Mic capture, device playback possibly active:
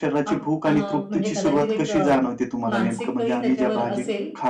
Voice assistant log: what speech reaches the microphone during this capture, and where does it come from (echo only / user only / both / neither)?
both